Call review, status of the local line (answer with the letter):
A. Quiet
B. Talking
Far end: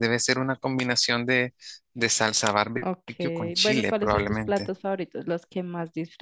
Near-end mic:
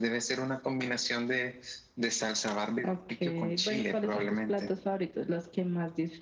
A